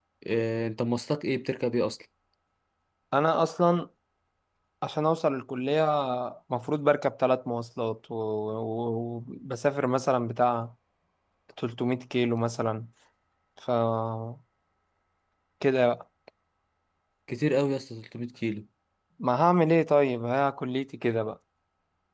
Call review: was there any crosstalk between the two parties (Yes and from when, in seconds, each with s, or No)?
No